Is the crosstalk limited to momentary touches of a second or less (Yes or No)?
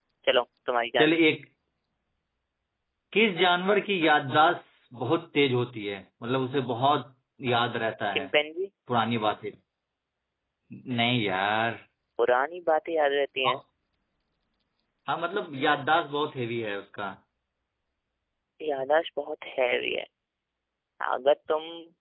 Yes